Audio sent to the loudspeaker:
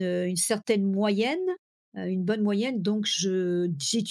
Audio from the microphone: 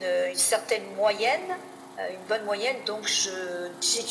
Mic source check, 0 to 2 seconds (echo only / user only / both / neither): echo only